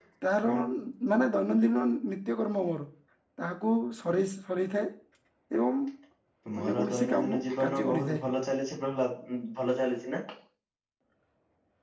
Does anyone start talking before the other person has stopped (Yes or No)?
Yes